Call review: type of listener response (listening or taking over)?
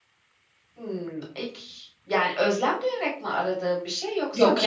taking over